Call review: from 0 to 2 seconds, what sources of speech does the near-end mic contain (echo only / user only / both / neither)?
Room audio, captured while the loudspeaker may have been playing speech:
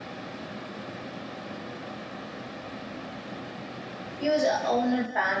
neither